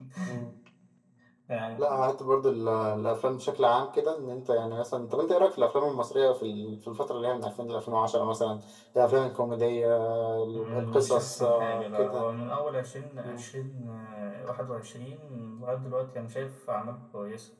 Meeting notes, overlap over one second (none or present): present